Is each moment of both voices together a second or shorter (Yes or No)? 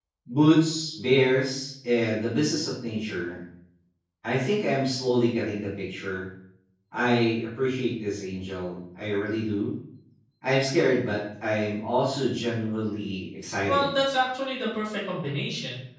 Yes